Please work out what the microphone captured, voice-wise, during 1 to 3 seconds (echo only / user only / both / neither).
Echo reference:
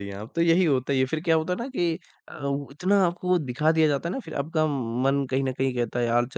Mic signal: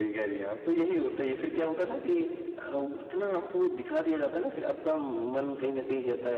echo only